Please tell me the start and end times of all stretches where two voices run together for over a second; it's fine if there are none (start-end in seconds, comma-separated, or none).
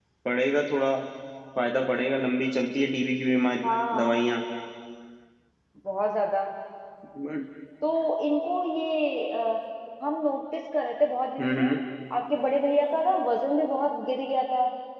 none